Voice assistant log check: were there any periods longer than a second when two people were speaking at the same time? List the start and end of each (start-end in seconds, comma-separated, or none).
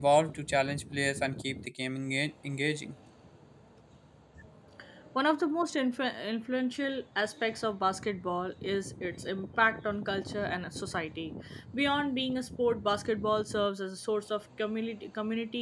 none